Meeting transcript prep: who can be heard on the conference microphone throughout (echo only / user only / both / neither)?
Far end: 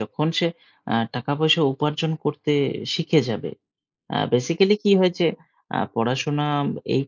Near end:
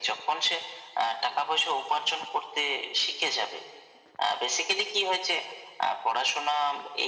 echo only